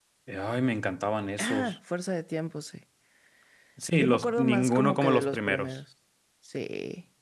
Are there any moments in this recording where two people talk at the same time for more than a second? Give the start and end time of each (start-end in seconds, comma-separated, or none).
4.0-5.8